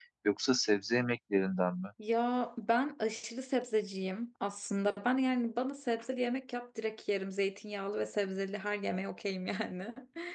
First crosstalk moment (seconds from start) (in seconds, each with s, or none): none